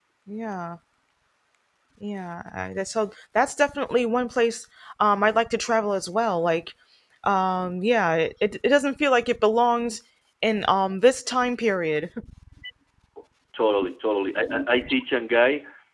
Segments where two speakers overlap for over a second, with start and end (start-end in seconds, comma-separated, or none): none